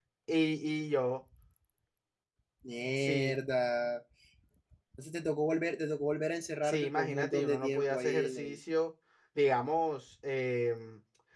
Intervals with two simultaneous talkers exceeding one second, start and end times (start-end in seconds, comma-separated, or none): 6.6-8.6